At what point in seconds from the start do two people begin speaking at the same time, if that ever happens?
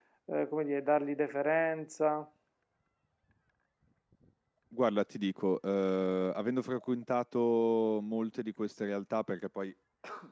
none

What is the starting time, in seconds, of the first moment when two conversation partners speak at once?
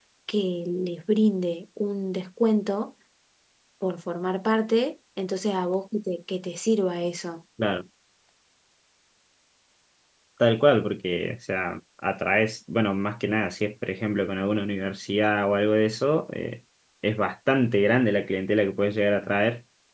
none

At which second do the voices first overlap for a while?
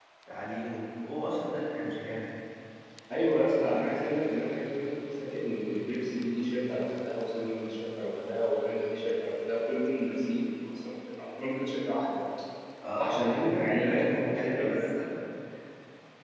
13.0 s

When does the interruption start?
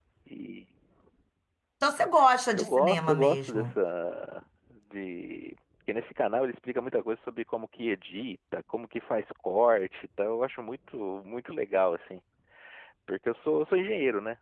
2.5 s

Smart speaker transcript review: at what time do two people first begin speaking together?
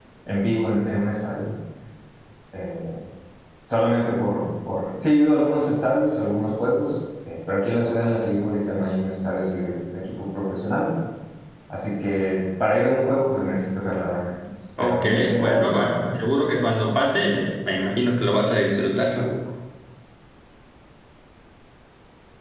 14.8 s

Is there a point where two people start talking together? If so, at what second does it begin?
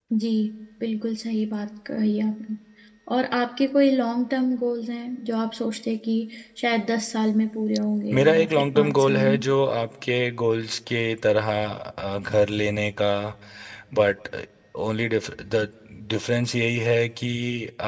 8.1 s

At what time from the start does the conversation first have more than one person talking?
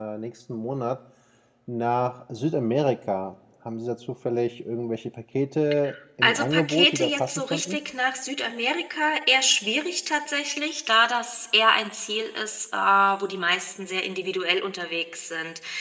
6.2 s

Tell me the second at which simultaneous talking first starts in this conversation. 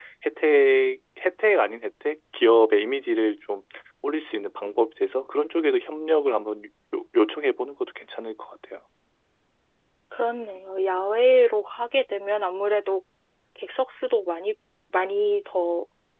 none

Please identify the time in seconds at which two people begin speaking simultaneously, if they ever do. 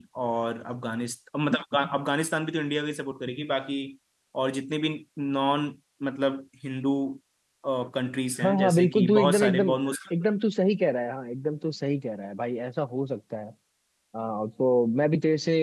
8.4 s

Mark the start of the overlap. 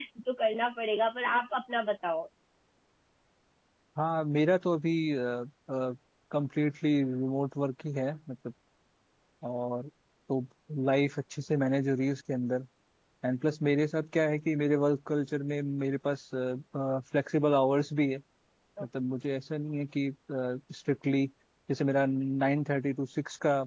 none

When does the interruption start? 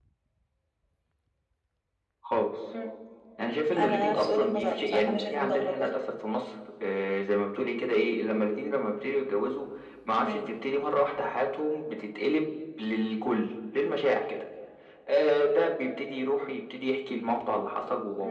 3.8 s

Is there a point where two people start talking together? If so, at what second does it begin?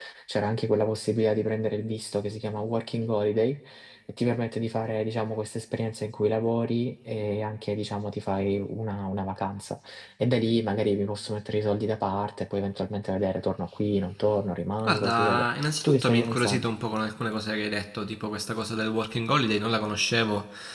14.8 s

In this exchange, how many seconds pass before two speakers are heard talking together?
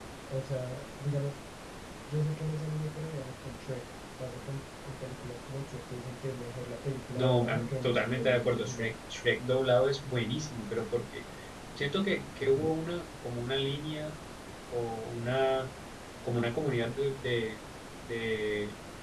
7.1 s

